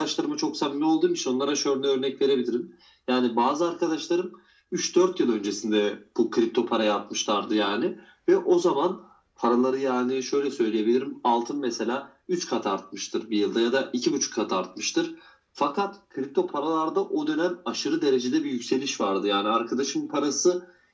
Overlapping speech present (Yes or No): No